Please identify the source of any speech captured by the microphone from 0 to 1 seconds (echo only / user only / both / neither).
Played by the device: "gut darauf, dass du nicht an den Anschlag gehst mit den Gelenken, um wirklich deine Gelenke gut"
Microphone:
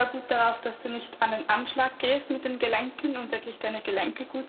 echo only